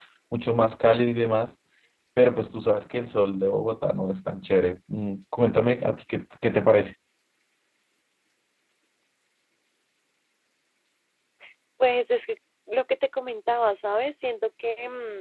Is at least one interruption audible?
No

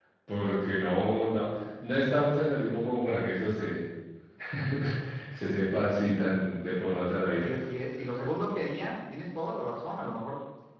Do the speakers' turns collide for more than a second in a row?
No

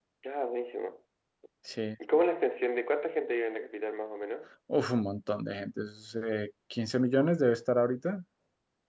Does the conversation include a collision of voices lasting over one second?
No

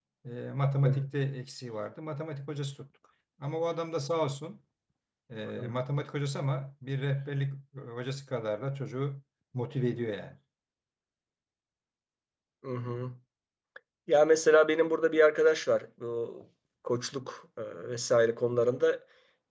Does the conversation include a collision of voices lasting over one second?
No

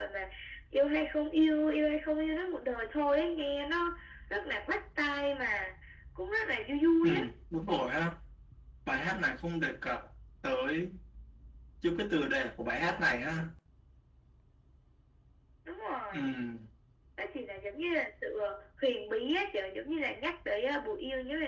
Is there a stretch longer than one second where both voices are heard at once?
No

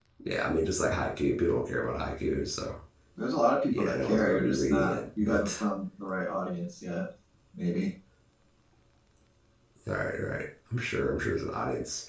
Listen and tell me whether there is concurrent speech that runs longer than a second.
Yes, from 3.7 s

